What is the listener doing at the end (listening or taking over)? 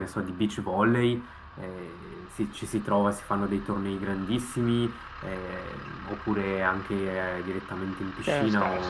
taking over